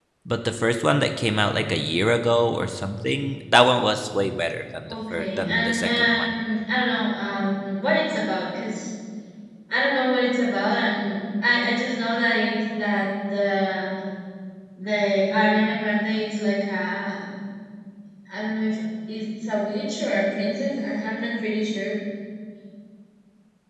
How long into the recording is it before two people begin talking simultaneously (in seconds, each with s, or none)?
4.9 s